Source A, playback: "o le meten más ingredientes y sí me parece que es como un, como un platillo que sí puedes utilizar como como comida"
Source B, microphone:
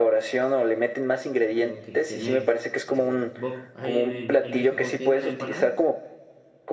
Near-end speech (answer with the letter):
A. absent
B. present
B